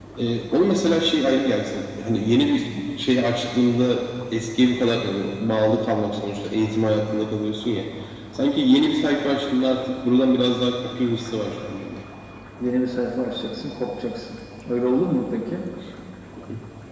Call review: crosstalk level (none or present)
none